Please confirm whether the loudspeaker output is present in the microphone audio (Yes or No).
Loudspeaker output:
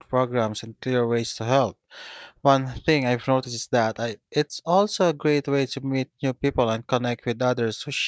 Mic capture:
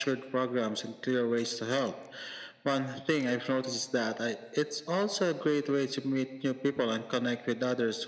Yes